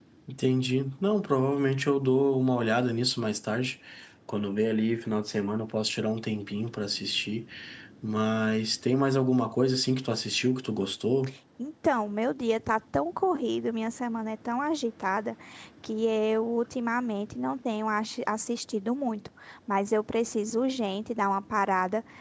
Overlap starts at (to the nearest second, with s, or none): none